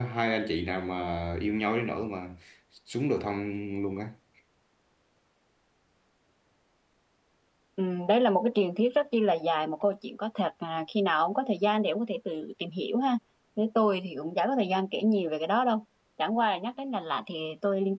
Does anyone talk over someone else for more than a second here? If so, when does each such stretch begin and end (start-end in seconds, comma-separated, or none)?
none